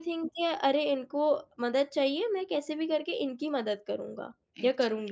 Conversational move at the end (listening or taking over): taking over